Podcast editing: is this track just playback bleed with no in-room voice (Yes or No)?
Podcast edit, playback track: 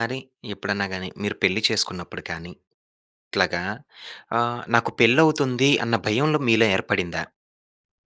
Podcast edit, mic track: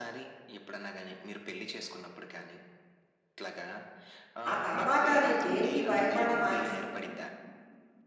No